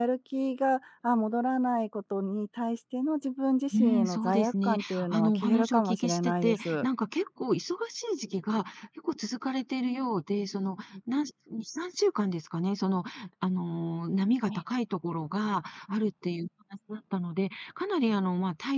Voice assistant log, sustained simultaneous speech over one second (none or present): present